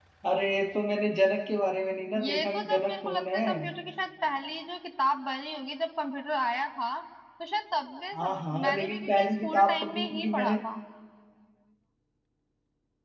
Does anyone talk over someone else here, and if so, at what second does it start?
2.2 s

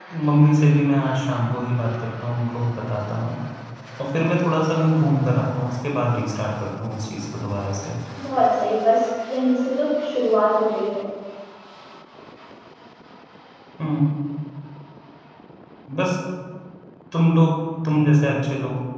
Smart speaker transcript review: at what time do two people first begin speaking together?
none

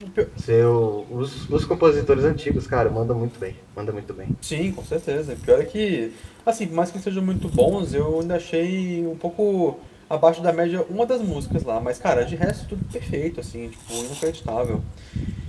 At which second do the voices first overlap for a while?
none

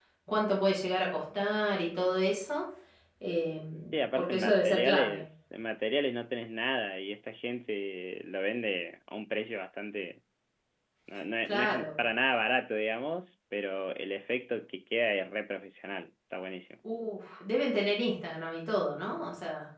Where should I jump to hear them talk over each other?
3.9 s

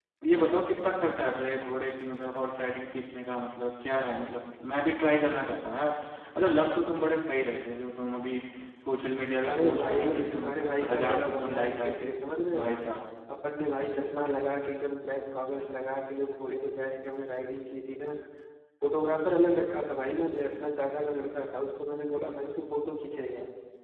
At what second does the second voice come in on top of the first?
9.5 s

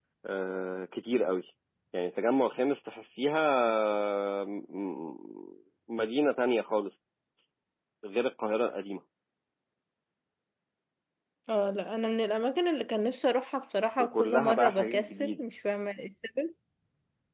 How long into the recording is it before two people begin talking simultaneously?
14.0 s

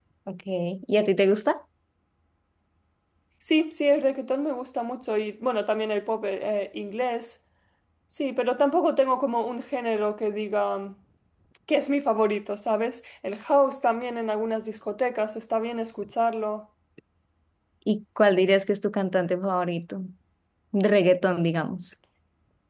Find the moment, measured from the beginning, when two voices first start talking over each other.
none

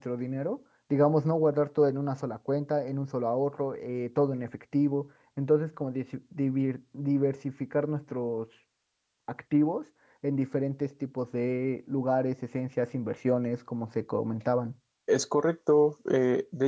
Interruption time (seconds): none

